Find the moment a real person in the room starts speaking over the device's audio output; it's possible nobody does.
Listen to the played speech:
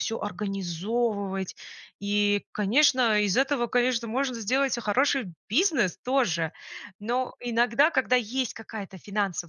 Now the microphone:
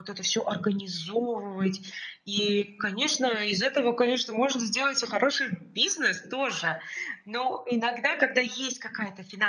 none

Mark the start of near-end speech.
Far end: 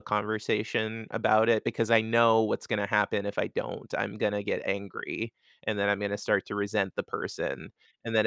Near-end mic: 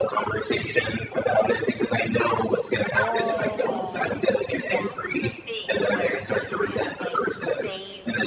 2.9 s

